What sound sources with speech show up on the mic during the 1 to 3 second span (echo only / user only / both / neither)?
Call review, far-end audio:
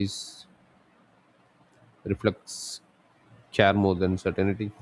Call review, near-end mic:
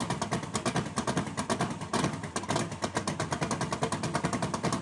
neither